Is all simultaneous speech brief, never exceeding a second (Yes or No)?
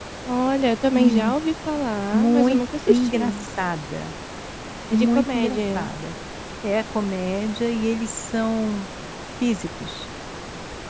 No